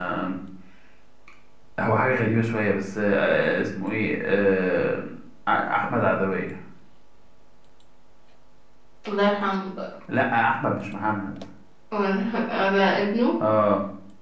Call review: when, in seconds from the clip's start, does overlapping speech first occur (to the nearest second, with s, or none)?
none